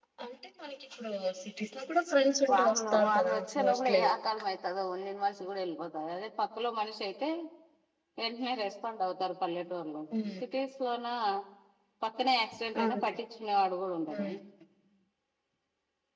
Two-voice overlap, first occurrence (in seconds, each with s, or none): 2.5 s